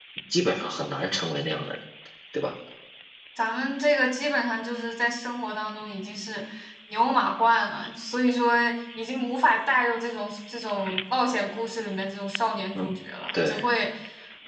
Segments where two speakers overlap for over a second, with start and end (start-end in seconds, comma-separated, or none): none